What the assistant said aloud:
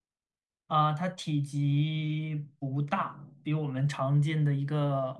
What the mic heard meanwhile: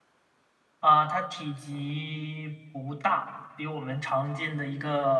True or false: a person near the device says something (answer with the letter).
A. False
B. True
A